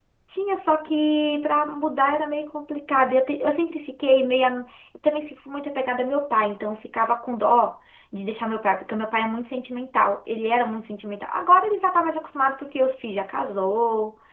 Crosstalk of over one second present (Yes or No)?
No